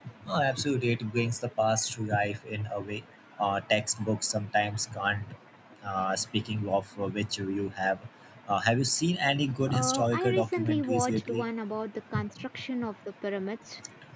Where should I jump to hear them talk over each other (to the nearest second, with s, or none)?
10 s